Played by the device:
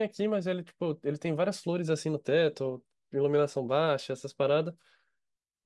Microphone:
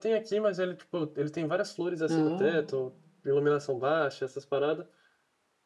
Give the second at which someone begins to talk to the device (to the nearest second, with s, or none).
2 s